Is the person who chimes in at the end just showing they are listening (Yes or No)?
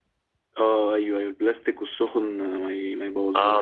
No